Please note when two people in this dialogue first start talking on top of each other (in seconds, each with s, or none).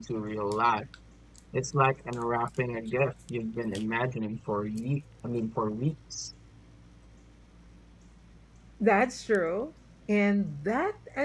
none